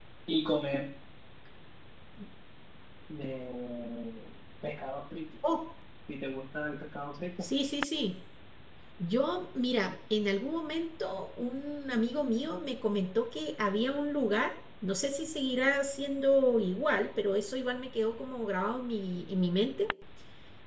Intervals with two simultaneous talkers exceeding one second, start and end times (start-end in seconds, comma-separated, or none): none